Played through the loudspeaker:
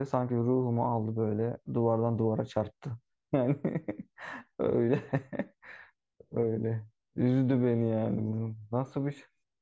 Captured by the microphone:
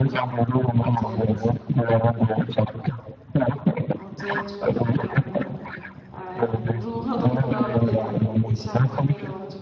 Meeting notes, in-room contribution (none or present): present